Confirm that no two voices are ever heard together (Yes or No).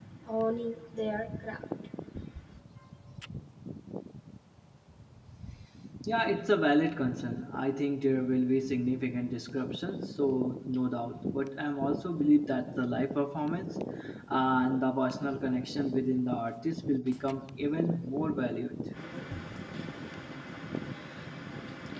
Yes